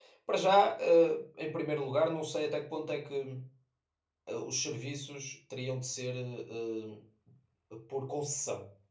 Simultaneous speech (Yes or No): No